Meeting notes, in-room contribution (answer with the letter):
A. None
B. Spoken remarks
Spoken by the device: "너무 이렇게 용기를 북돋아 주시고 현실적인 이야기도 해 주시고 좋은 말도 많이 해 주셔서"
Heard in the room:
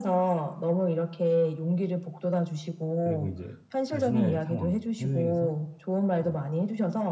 B